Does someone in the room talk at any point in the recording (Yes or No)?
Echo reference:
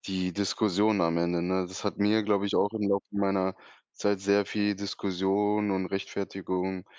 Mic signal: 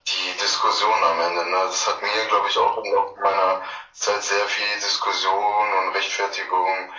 No